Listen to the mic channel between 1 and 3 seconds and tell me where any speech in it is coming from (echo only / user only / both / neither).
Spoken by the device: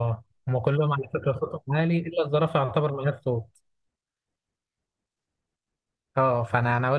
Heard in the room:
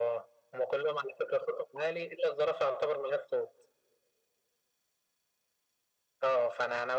echo only